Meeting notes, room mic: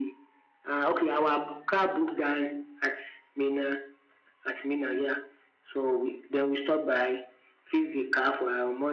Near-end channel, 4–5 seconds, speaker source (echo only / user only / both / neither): echo only